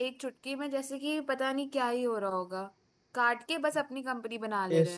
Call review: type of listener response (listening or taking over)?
taking over